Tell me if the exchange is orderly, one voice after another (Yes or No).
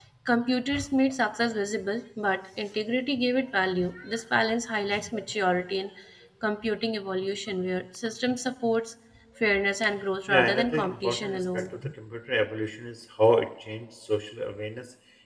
No